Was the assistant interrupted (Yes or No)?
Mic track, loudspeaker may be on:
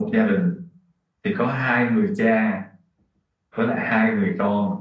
No